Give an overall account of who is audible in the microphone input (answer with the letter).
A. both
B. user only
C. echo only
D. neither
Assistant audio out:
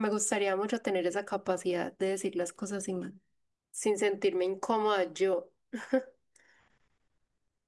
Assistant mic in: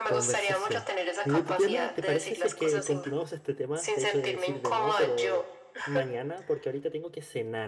A